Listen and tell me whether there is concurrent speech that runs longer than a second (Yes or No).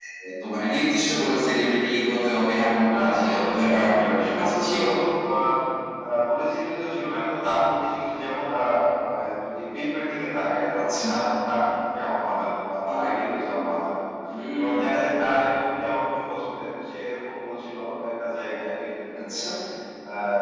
Yes